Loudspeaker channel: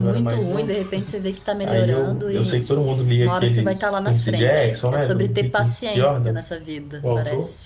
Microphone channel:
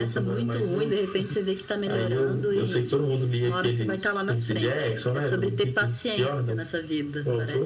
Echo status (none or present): present